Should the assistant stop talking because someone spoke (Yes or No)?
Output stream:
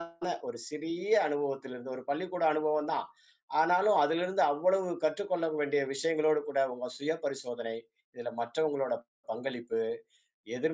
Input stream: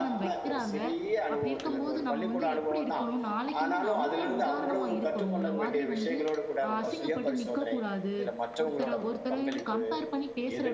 Yes